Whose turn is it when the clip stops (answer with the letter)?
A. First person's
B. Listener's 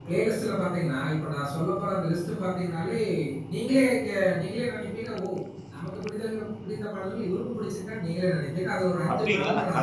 B